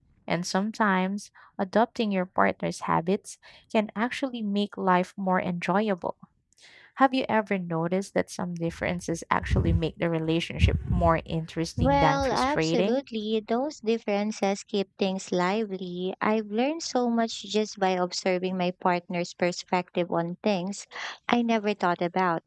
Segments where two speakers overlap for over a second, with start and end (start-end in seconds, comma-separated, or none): 11.8-13.0